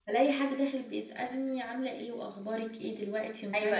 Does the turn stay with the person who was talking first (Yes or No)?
No